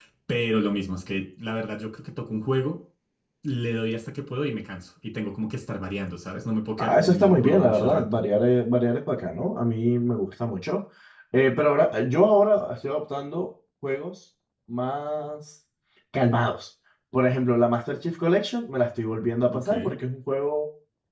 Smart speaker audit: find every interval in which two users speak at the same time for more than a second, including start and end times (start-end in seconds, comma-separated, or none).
6.8-8.2